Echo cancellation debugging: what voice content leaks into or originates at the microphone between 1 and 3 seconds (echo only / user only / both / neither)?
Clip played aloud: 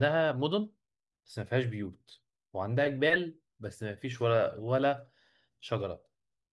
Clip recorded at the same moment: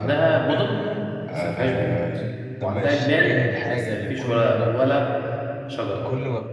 both